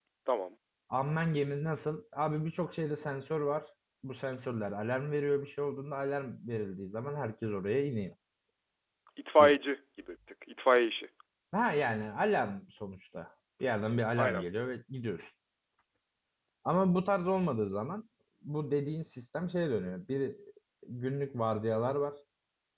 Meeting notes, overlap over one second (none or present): none